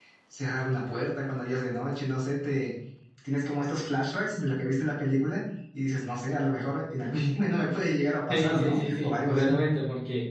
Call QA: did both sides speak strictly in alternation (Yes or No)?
No